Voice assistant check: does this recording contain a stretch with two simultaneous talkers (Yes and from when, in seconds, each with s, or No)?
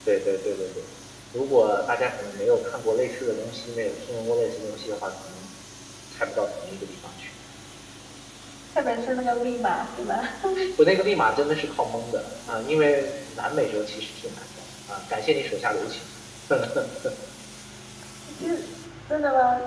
No